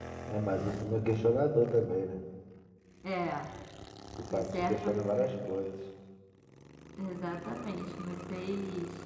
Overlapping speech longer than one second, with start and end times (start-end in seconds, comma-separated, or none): 4.3-5.5